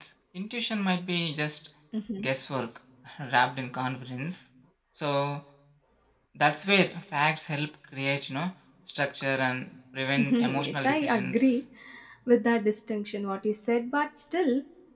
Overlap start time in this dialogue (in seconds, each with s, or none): 10.2 s